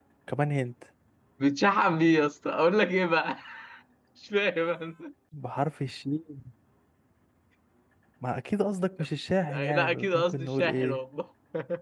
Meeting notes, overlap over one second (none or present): present